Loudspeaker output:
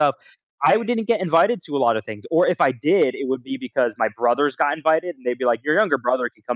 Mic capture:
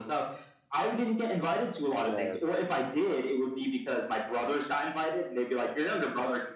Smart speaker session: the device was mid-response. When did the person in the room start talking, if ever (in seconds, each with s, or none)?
1.9 s